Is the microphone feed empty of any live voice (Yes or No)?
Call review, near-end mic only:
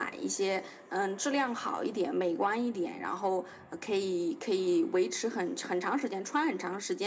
Yes